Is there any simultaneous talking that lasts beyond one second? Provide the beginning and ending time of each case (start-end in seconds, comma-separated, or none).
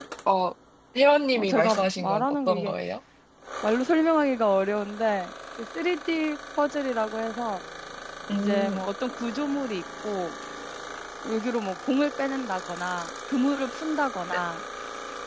1.4-2.7